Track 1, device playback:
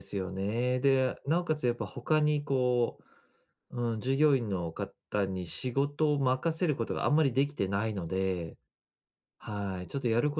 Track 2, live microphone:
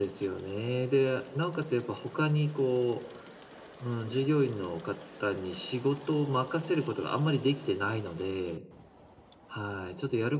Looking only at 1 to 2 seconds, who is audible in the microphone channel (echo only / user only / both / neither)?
echo only